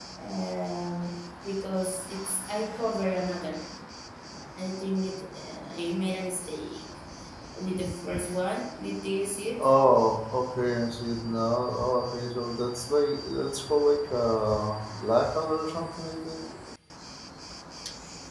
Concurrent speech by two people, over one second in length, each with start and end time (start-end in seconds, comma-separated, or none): none